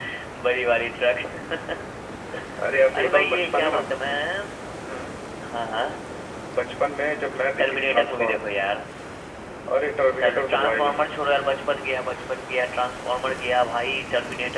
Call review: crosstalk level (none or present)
present